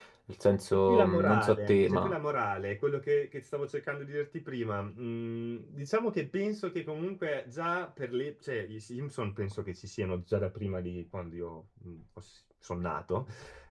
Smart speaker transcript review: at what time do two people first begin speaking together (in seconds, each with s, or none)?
0.7 s